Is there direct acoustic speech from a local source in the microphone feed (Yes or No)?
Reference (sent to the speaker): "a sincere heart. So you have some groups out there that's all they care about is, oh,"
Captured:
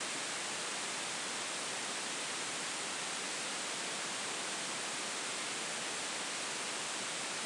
No